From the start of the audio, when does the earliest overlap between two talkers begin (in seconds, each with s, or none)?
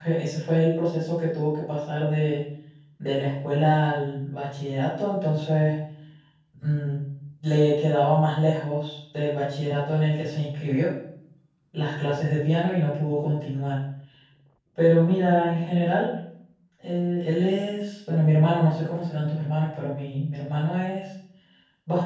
none